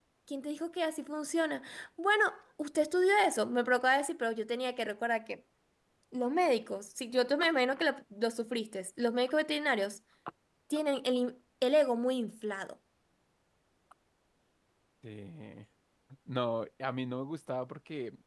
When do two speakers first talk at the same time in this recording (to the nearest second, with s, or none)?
none